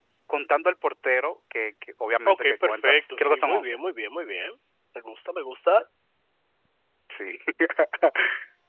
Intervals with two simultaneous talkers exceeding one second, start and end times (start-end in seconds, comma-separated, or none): 2.3-3.8